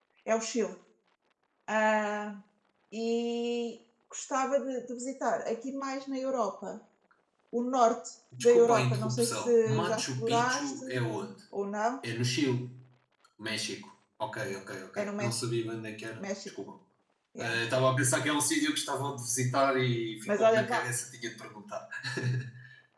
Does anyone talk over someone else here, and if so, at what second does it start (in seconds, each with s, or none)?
8.4 s